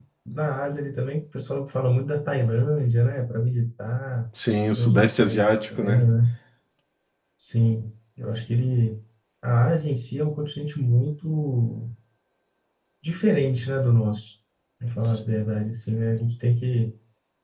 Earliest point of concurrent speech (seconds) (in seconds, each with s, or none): 4.8 s